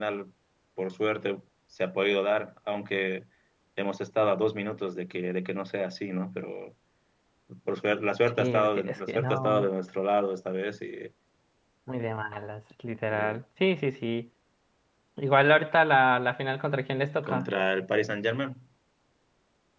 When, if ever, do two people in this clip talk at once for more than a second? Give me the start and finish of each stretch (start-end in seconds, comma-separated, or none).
8.4-9.7